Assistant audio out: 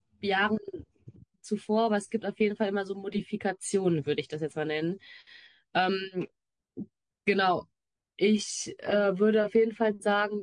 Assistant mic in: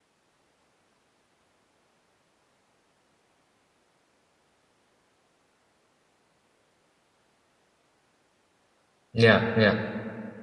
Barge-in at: 9 s

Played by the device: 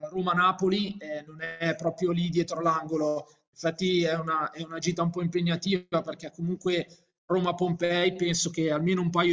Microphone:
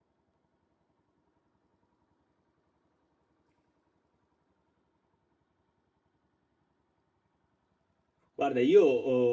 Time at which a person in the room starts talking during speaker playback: 8 s

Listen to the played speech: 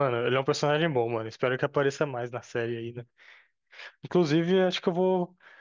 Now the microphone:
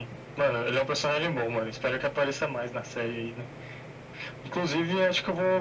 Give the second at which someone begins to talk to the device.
none

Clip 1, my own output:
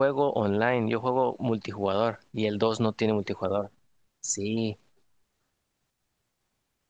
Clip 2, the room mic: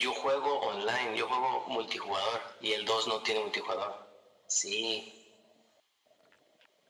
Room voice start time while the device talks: none

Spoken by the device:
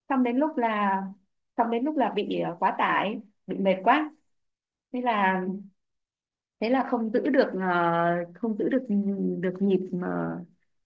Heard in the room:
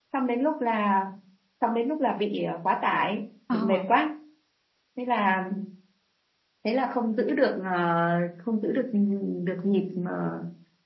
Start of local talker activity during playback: 3 s

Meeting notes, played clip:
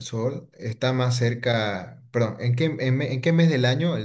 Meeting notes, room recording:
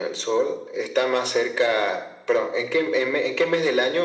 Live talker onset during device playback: none

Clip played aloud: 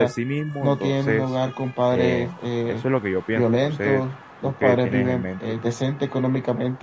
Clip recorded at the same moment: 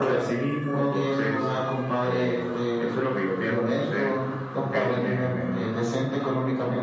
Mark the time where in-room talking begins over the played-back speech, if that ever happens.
none

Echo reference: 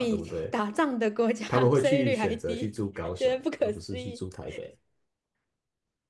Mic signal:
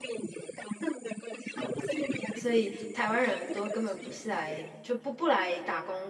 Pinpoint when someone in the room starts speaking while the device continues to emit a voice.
2 s

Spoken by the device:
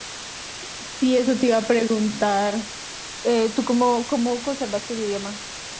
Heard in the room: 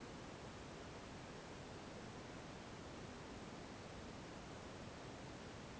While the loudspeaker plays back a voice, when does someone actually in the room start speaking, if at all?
none

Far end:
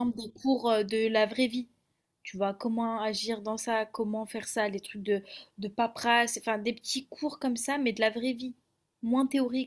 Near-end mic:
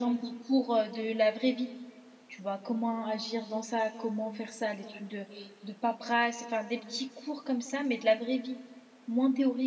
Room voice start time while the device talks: none

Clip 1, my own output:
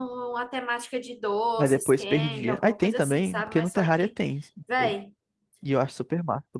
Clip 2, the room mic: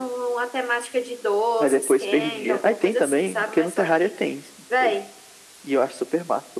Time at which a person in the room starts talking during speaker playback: none

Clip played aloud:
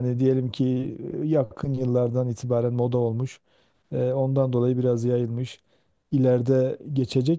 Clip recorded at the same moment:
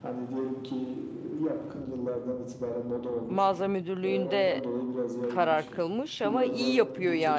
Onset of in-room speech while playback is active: 3 s

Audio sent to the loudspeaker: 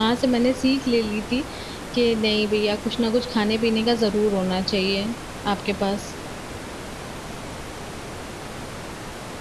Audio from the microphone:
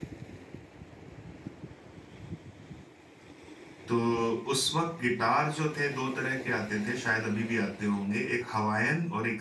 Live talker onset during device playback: 4 s

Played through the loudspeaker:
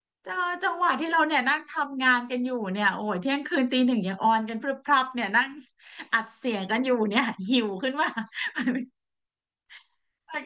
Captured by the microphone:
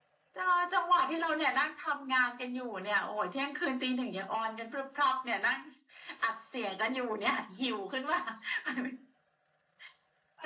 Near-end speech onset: none

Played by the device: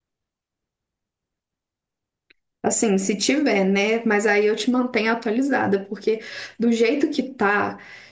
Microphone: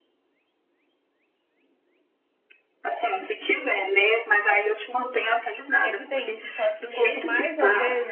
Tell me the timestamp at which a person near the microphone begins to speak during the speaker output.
6 s

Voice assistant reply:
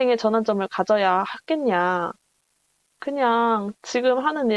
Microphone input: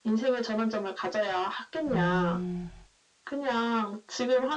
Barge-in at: 2 s

